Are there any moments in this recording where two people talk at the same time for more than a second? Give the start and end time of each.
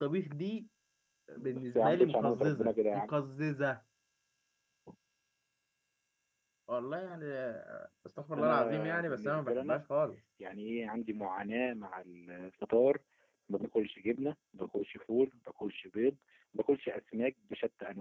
1.5-3.1, 8.4-9.8

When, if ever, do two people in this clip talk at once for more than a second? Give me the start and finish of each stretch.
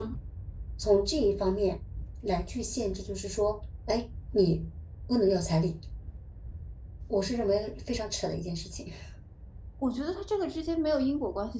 none

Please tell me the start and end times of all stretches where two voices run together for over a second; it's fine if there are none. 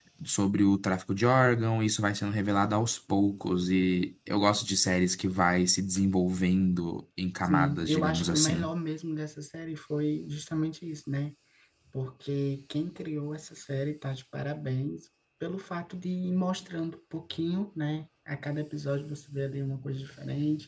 7.4-8.7

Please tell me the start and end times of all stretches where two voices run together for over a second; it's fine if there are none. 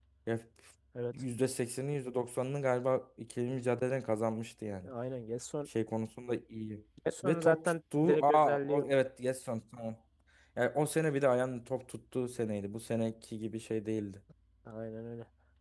7.2-8.9

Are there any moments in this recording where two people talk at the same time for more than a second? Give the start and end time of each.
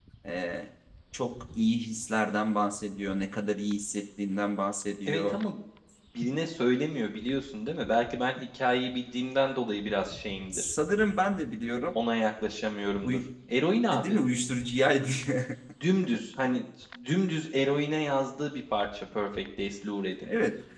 none

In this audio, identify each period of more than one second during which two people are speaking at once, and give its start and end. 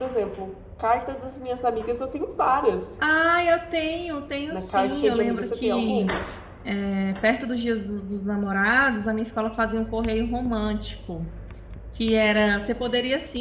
4.5-6.1

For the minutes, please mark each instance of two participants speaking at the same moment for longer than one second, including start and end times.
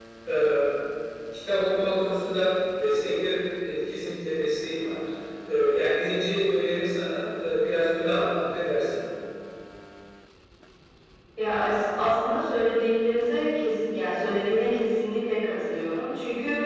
none

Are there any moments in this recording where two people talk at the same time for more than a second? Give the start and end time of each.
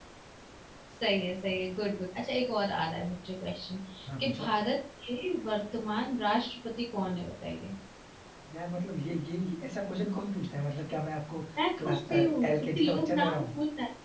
11.8-13.4

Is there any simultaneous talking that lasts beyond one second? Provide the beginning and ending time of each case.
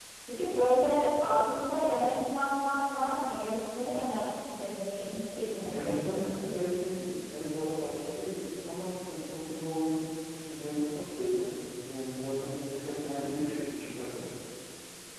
none

